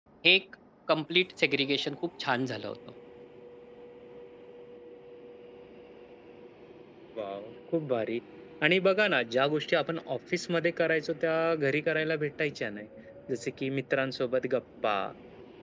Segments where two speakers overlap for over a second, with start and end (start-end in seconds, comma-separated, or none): none